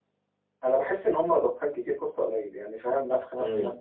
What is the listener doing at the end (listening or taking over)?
listening